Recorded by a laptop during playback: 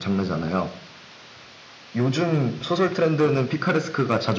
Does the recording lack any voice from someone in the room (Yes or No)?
Yes